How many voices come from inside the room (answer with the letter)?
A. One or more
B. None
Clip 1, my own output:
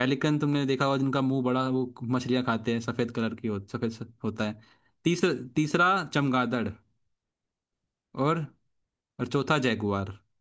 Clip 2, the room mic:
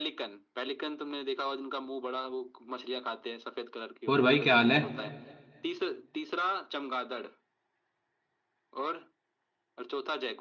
A